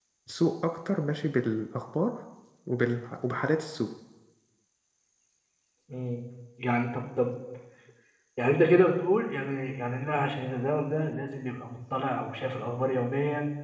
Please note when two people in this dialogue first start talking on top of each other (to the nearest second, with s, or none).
none